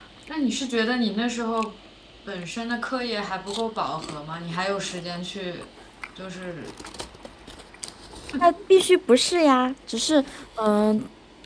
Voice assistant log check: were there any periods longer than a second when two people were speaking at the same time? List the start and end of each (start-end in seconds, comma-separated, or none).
none